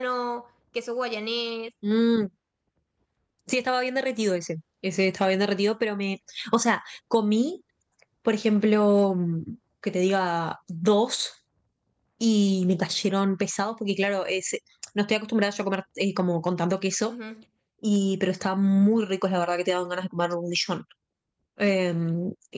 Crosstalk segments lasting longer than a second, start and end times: none

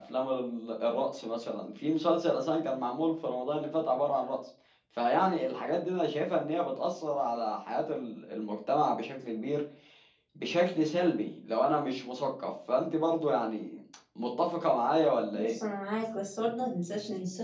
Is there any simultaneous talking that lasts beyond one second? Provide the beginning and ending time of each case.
none

